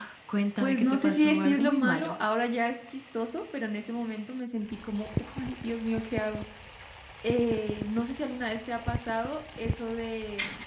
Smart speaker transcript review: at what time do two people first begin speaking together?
1 s

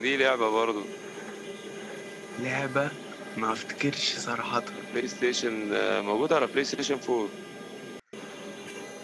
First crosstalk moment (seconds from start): none

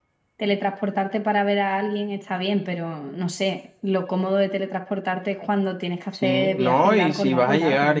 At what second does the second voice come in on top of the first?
6 s

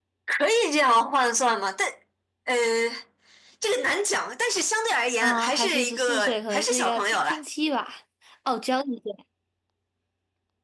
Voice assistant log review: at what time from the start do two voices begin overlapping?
5 s

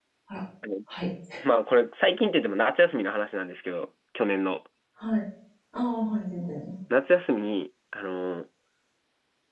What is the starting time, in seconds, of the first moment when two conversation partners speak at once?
none

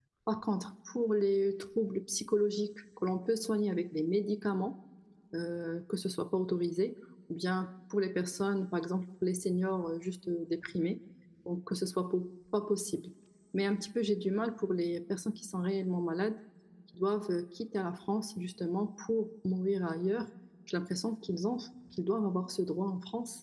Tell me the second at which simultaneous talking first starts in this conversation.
none

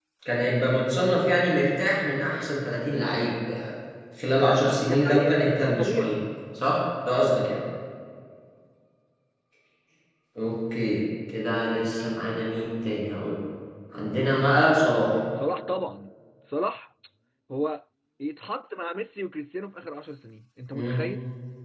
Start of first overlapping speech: 5 s

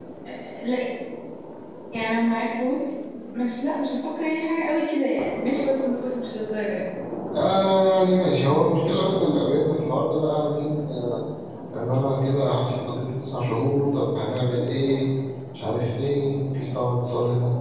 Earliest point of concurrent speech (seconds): none

